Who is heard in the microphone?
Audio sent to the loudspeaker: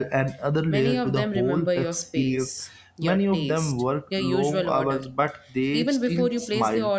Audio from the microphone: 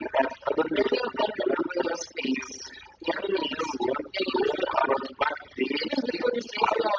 echo only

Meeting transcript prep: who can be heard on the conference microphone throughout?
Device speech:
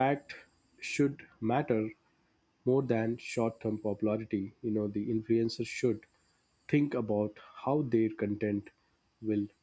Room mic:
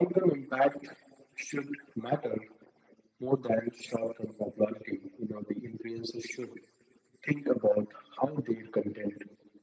echo only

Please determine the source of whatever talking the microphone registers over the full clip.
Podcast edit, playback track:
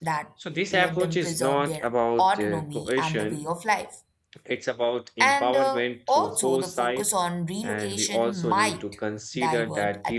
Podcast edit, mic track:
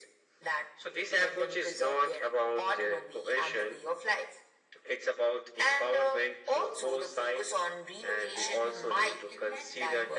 both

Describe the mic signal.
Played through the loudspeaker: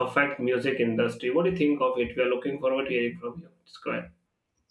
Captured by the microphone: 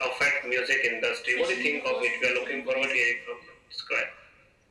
both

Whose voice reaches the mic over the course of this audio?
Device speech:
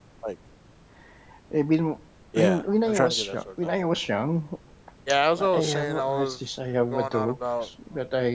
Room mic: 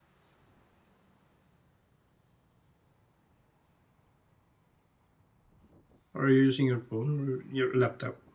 user only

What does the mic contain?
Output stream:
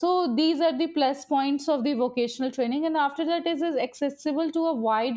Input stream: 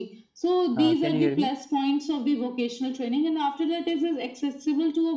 both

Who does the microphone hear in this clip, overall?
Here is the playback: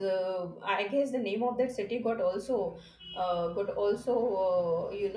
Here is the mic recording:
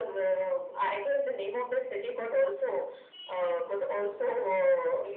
echo only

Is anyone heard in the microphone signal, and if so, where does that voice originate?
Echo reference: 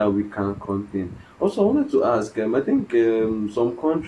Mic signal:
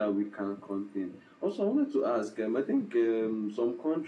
echo only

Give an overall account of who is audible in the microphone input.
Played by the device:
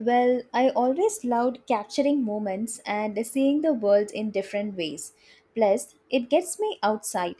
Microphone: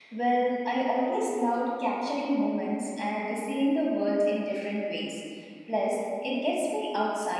echo only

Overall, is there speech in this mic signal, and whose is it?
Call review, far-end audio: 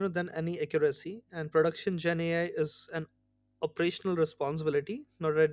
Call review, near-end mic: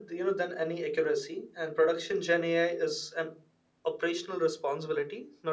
echo only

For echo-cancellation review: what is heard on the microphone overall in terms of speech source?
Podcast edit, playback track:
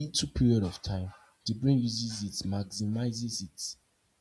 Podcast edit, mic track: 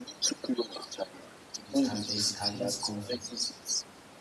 both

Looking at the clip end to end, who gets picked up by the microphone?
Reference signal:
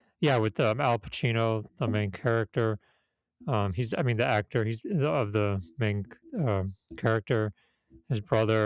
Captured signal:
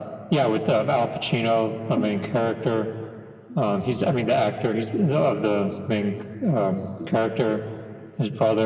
echo only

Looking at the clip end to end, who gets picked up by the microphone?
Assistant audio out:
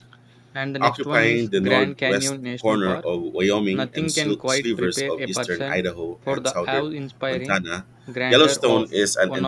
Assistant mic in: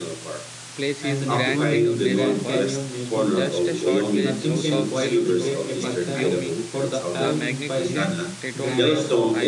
both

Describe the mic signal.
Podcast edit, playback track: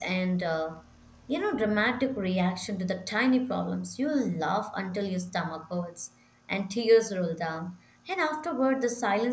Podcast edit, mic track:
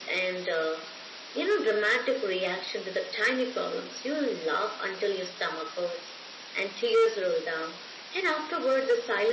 echo only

